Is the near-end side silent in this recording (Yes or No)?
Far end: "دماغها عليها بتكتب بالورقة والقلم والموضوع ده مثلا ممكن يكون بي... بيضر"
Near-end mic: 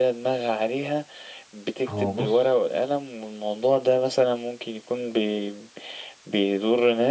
No